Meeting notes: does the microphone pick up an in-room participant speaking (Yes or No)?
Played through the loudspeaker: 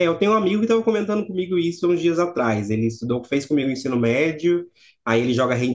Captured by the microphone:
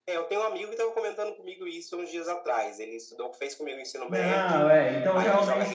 Yes